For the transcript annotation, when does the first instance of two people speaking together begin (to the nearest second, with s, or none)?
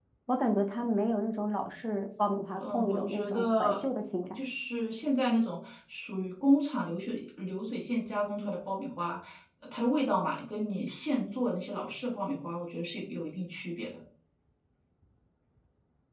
3 s